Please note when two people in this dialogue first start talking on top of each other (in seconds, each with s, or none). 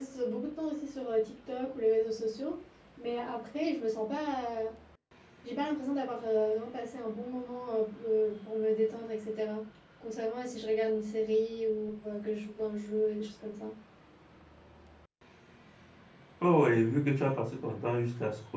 none